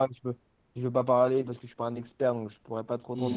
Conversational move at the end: taking over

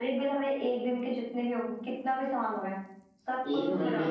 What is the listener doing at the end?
taking over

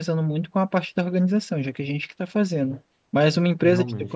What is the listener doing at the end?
listening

